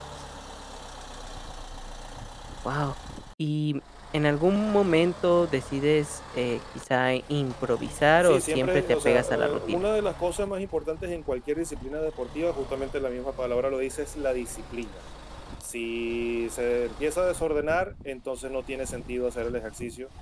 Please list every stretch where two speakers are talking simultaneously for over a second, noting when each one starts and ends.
8.2-9.8

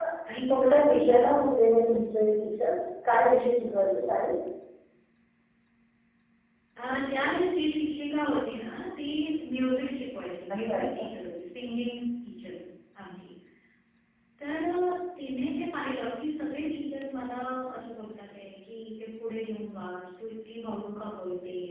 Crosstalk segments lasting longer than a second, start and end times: none

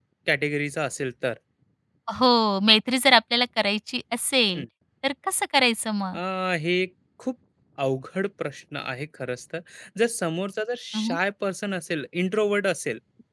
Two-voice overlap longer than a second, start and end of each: none

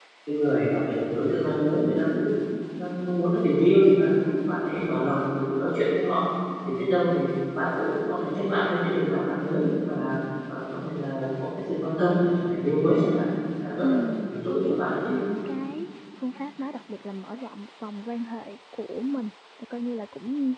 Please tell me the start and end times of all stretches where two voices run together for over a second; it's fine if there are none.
13.8-15.1

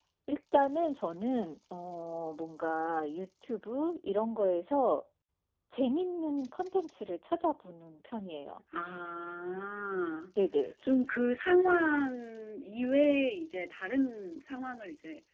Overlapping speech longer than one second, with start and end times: none

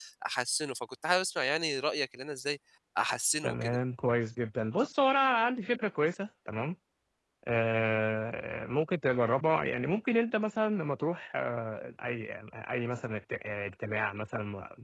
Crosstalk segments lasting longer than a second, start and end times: none

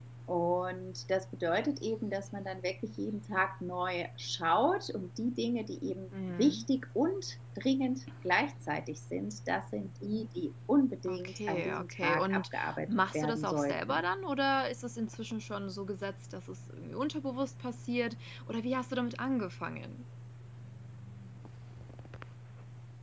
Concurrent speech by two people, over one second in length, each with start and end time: 11.1-14.0

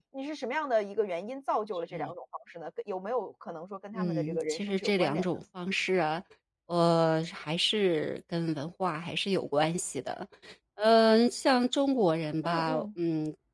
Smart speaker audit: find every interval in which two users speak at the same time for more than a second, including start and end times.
3.9-5.3

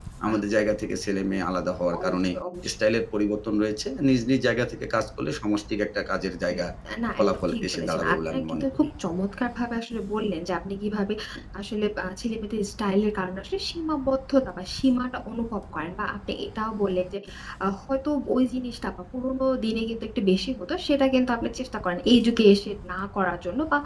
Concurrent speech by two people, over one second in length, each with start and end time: 7.2-8.9

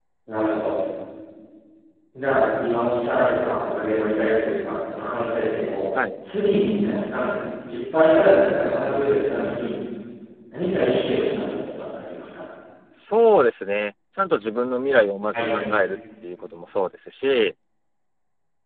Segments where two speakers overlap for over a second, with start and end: none

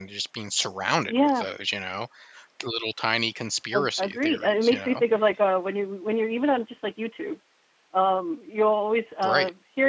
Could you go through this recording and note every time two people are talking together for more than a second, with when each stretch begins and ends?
3.7-5.0

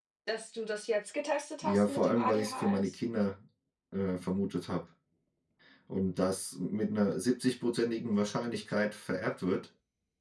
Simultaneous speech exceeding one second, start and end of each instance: 1.6-3.0

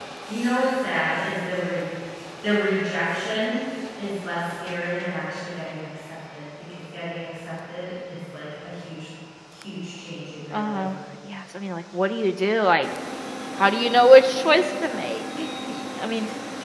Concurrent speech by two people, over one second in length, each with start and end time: none

